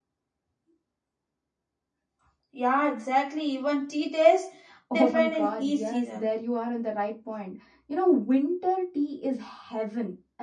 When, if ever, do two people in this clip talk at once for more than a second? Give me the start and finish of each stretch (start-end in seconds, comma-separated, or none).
4.9-6.3